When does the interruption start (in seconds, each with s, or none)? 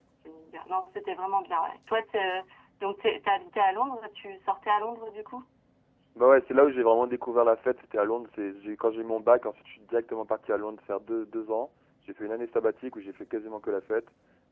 none